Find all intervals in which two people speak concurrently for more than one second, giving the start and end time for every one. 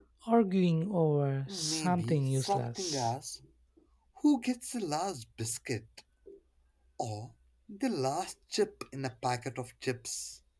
1.5-3.1

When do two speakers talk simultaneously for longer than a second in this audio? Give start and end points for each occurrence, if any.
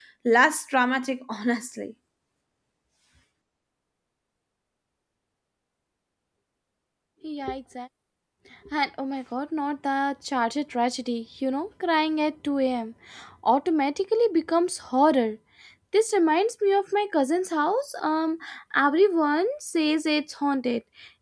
none

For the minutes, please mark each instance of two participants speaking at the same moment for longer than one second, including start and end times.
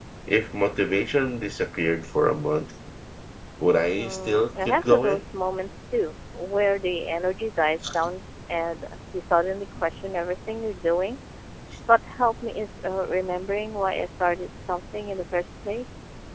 3.9-5.2

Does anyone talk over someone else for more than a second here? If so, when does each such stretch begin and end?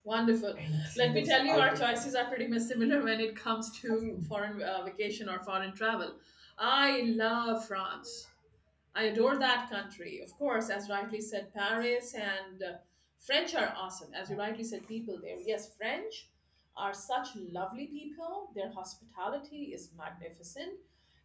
0.6-2.1

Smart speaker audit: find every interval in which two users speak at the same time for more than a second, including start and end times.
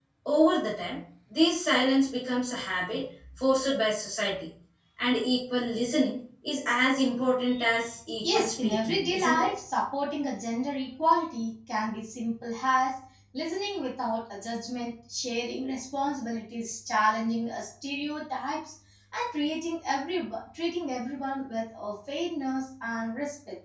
8.2-9.5

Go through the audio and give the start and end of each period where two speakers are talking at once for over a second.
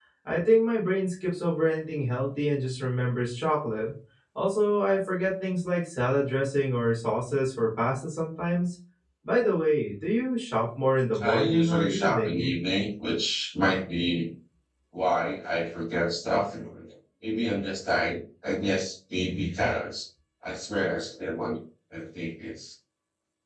11.2-12.5

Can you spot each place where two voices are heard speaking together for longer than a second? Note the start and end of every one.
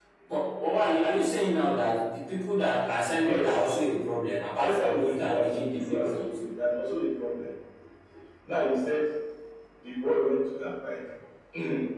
4.6-6.4

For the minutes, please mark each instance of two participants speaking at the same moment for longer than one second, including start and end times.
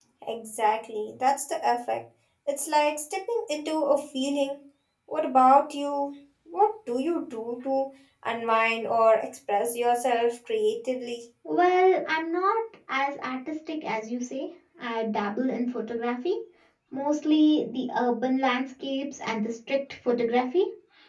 none

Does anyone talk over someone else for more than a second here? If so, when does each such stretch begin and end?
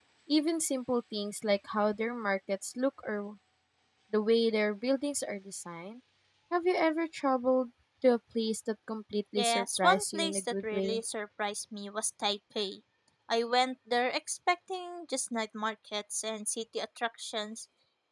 9.3-11.0

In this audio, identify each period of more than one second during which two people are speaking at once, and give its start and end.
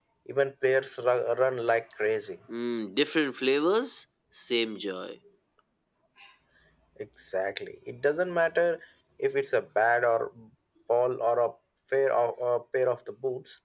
none

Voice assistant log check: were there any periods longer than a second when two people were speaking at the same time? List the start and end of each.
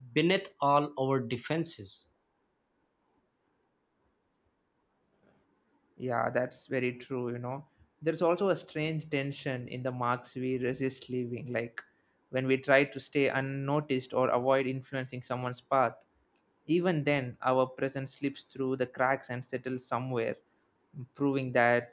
none

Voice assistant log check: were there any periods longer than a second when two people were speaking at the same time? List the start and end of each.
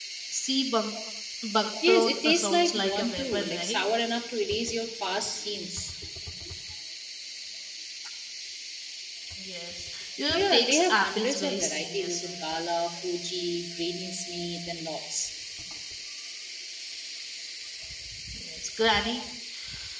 1.9-3.8, 10.3-12.4

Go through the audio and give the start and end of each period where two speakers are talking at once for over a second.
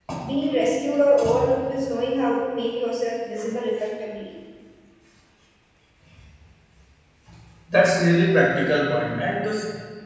none

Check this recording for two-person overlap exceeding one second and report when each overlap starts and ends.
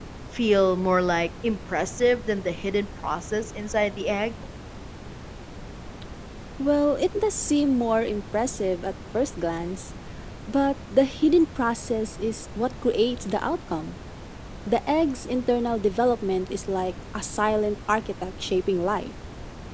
none

